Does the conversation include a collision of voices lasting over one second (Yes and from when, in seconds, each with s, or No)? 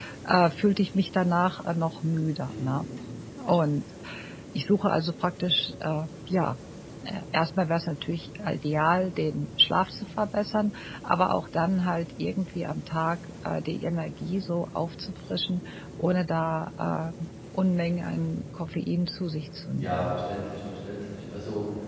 No